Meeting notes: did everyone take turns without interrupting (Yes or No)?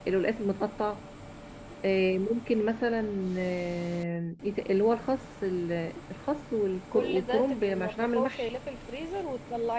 No